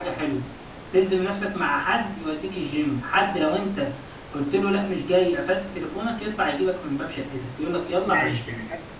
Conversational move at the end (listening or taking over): taking over